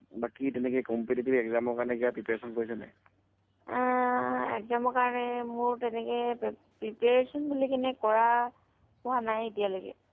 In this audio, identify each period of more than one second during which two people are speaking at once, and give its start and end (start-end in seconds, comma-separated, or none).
none